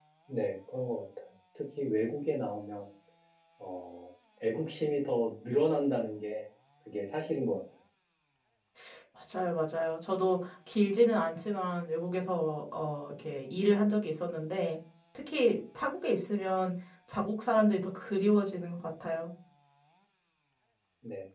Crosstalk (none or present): none